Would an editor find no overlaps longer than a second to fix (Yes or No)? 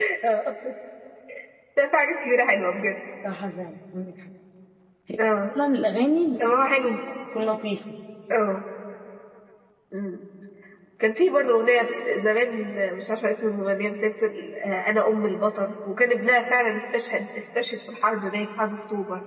Yes